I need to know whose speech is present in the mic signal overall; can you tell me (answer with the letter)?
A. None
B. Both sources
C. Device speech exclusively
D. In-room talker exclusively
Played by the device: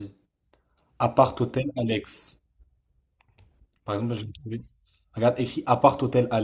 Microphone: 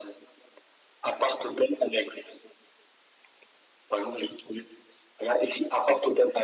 C